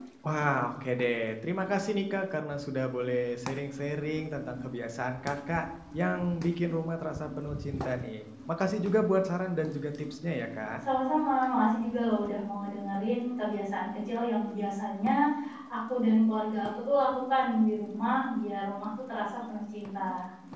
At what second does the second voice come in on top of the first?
none

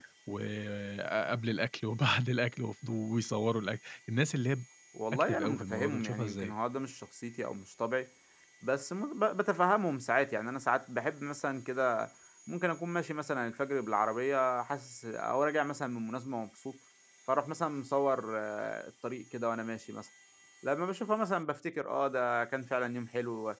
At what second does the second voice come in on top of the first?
5 s

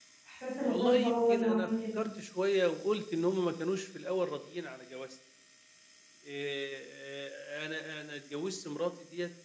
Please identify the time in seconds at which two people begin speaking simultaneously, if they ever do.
1 s

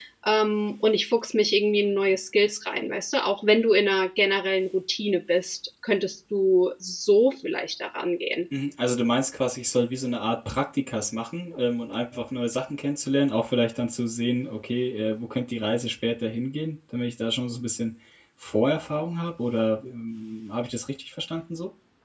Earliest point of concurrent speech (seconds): none

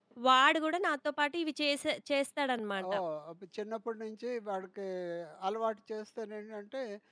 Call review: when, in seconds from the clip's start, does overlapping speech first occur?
none

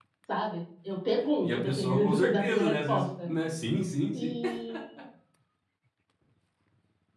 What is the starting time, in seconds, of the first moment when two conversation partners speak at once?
1 s

